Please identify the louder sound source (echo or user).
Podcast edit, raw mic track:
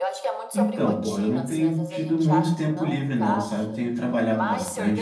user